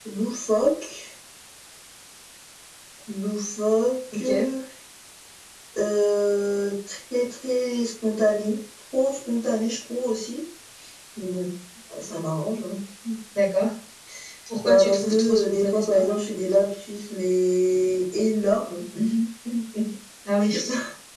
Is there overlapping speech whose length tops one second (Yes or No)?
Yes